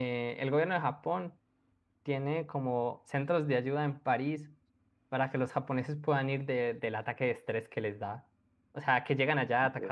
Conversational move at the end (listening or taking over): listening